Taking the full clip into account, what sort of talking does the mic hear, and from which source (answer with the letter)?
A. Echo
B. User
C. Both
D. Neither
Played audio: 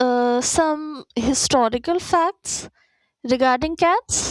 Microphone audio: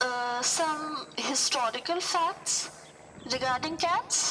A